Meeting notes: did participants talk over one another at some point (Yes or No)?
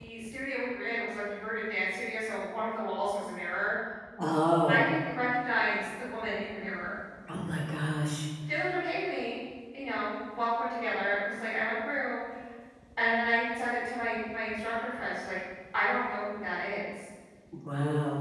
No